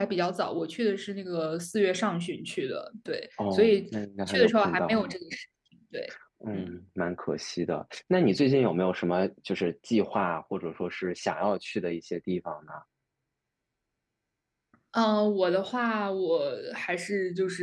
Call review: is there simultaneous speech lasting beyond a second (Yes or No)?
Yes